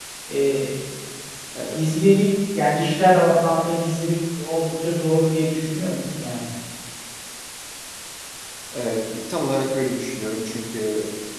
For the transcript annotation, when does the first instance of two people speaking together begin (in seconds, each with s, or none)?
none